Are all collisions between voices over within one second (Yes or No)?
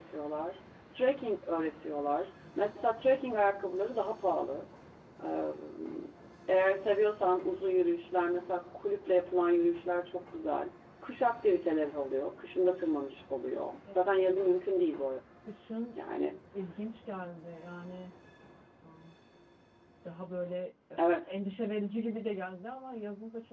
Yes